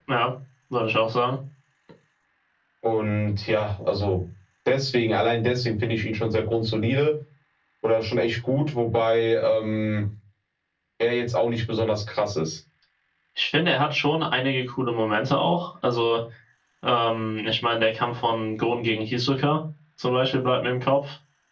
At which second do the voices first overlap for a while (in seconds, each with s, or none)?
none